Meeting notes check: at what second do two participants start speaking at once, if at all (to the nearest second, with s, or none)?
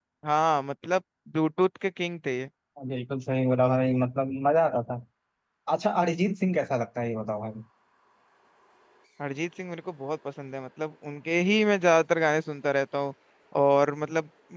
none